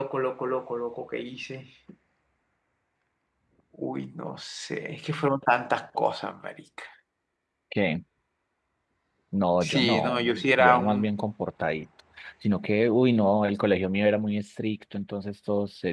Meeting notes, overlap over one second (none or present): present